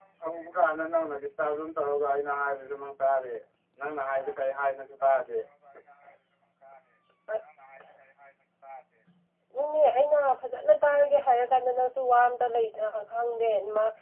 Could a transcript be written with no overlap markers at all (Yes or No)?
Yes